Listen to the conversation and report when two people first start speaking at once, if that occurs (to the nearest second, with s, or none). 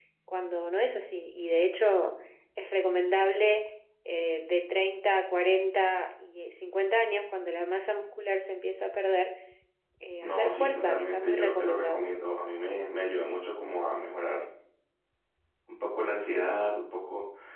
10 s